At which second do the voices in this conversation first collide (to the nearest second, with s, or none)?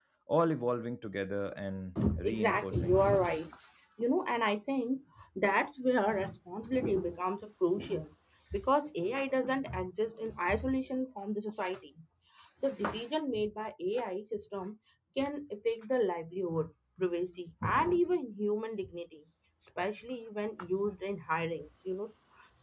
2 s